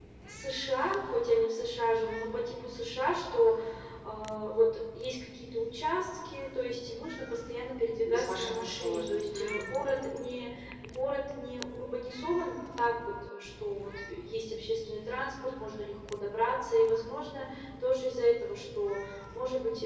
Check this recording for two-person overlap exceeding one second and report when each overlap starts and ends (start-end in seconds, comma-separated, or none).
8.1-9.6